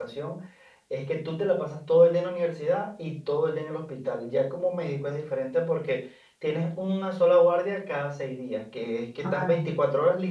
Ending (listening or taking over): listening